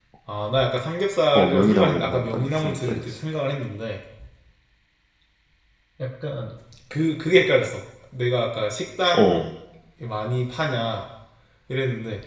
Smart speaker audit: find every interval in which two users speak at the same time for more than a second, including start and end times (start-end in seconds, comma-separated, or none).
1.4-3.0